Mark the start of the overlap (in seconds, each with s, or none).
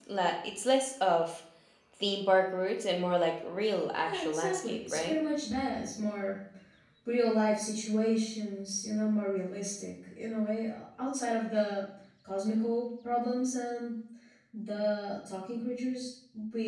3.9 s